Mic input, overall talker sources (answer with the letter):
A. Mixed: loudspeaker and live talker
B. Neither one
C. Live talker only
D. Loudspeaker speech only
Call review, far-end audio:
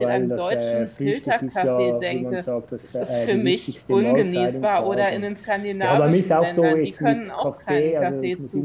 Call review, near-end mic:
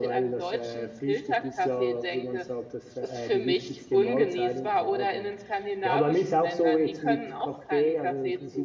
D